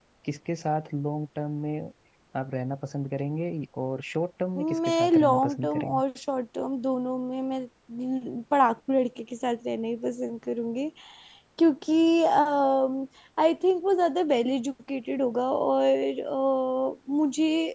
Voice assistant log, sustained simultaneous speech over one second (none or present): present